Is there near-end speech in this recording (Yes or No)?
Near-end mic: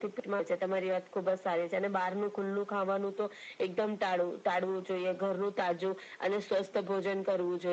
No